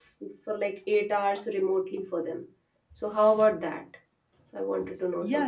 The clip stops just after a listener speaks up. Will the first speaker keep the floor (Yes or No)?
No